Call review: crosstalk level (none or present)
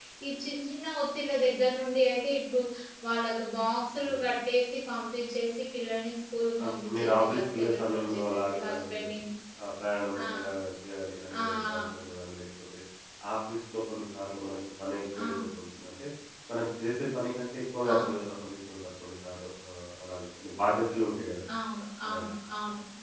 present